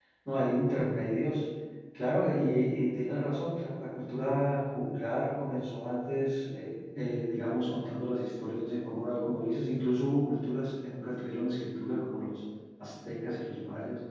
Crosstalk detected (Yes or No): No